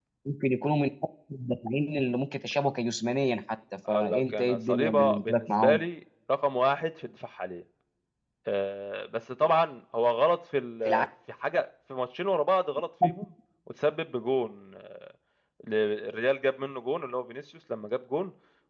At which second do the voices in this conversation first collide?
3.9 s

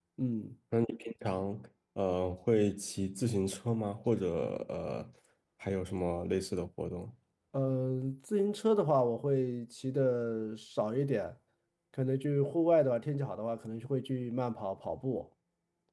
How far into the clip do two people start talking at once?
none

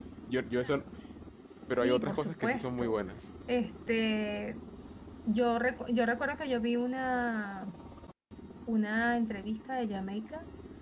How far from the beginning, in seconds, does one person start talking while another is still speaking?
1.8 s

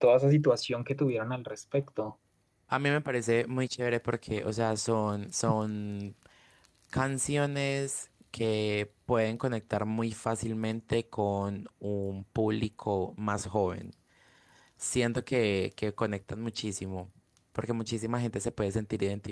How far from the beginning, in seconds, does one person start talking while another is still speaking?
none

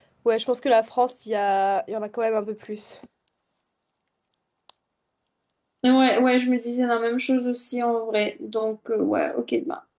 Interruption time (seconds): none

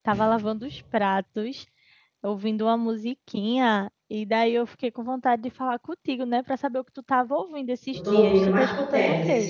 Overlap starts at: 7.9 s

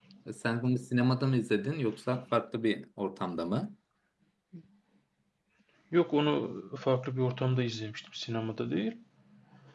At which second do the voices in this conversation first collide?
none

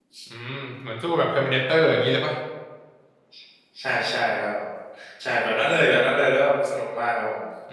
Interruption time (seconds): none

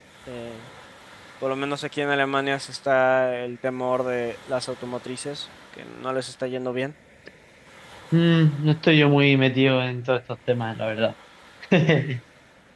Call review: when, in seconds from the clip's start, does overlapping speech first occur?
none

